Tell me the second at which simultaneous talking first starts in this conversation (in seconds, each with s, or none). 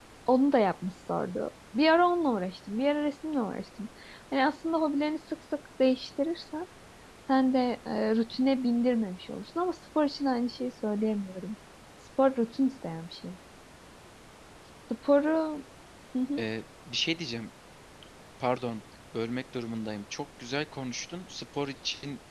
none